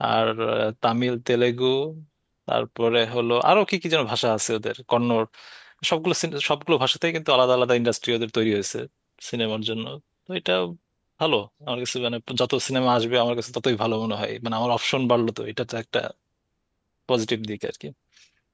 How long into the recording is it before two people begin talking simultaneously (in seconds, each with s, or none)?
none